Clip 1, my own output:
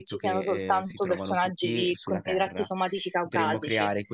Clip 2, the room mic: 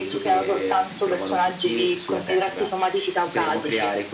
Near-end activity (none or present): none